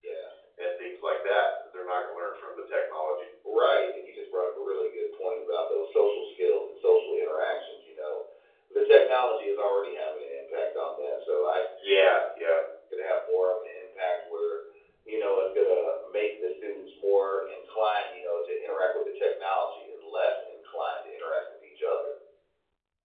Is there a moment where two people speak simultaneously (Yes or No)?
No